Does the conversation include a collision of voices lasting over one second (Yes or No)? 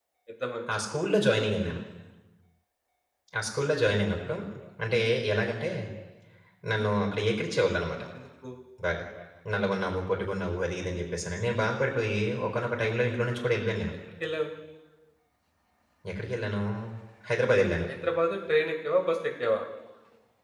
No